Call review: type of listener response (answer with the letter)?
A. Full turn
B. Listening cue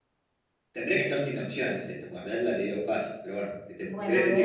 A